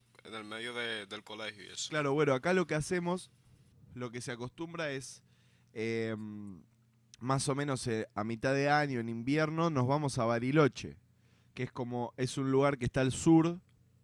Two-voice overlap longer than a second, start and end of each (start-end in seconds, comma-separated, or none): none